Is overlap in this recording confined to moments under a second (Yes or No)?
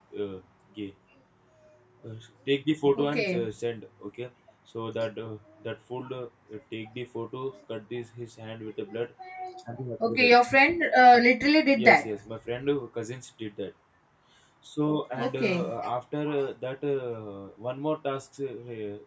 Yes